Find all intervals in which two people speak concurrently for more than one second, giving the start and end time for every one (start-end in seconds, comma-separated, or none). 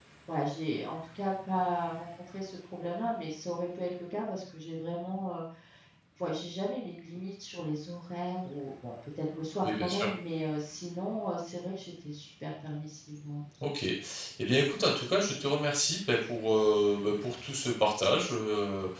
none